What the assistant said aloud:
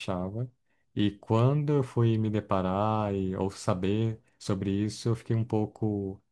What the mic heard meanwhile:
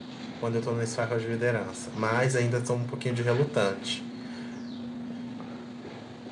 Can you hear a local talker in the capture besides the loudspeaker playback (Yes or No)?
Yes